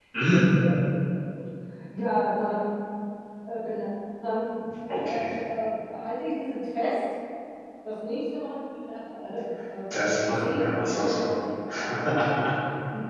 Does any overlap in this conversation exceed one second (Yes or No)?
Yes